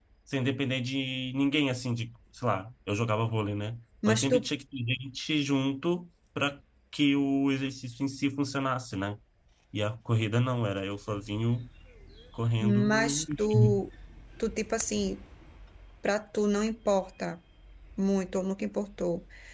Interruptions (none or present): present